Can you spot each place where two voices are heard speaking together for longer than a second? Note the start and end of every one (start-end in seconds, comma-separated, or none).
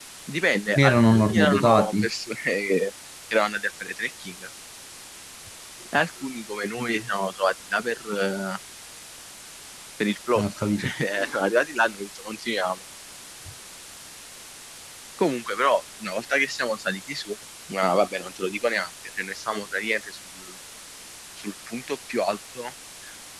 0.8-2.1